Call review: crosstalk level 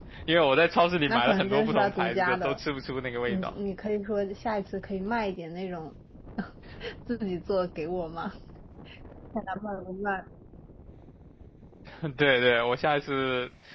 present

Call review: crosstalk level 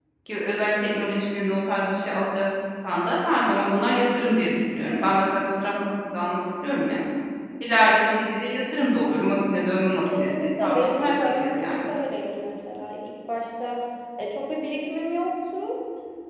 present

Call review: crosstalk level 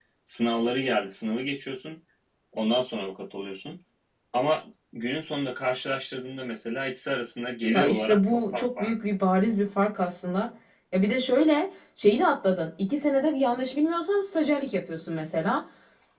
present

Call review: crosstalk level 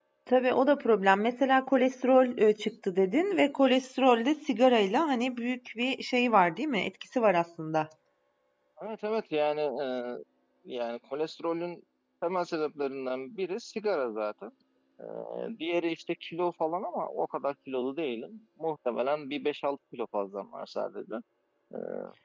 none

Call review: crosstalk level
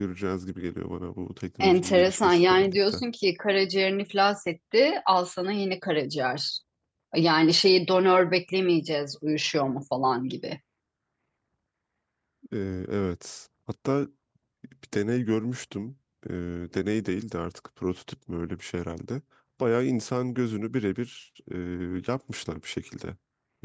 present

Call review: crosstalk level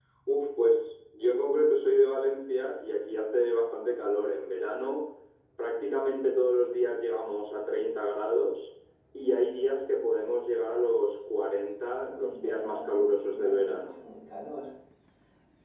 present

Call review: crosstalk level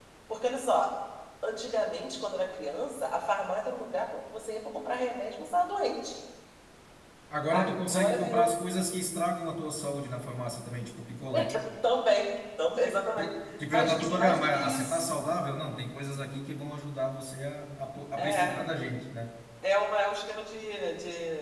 present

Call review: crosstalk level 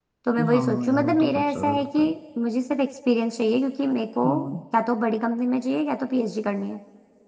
present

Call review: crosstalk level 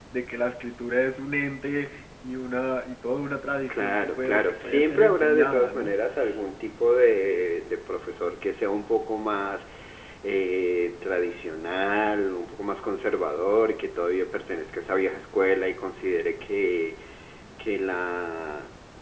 present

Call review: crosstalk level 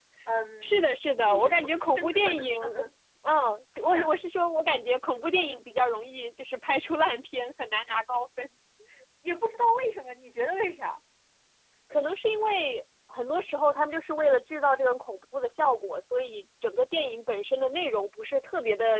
present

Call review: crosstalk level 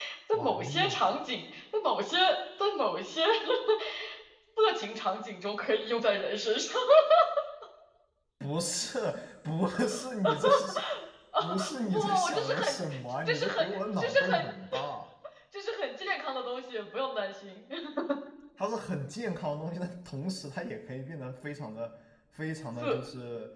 present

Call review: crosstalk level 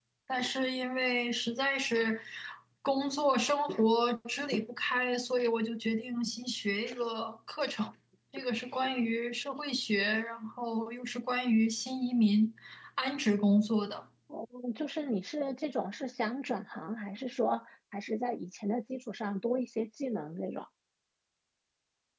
none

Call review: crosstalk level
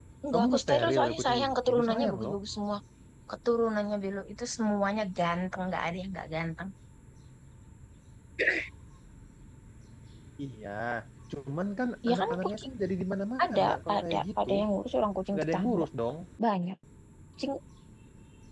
present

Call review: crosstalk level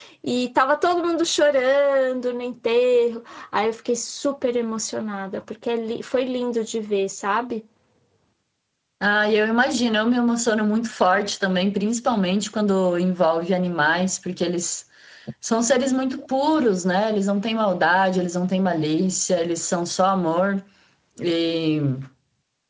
none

